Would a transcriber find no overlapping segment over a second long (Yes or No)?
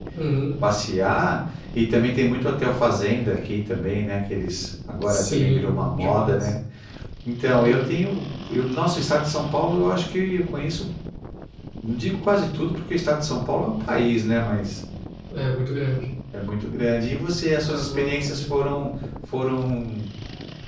No